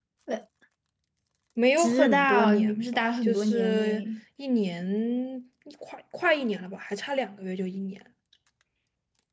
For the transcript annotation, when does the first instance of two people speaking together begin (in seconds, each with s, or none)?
1.8 s